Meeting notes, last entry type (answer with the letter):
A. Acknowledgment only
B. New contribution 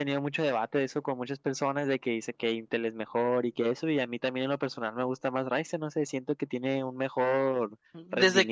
B